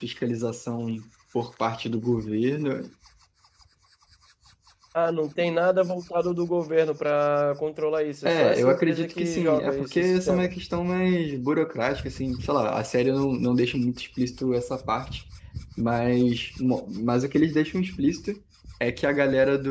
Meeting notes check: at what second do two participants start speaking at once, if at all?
8.2 s

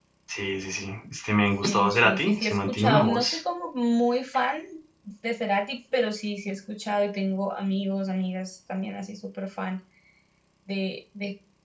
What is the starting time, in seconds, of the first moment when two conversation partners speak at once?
1.6 s

